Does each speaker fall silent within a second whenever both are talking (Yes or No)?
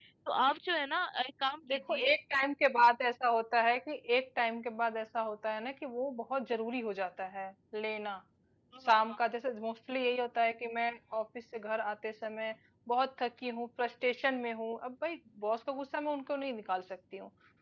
Yes